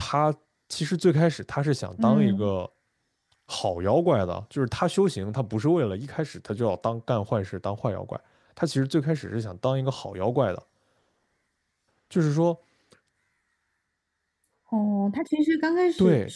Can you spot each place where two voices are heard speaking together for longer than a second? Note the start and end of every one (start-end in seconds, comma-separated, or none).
none